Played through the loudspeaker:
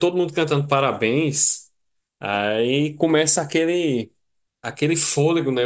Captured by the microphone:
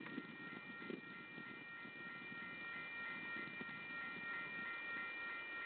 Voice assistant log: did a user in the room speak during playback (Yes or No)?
No